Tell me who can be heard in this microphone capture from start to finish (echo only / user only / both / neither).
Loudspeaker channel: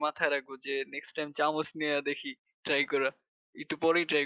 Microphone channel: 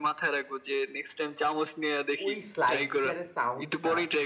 both